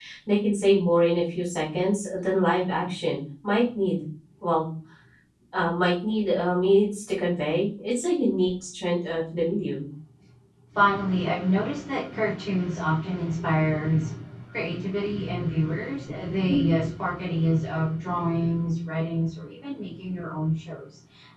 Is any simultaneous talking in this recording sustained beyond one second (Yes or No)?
No